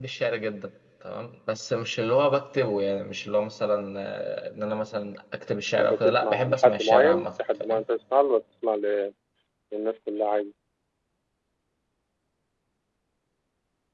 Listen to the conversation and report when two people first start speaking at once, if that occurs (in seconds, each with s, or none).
5.7 s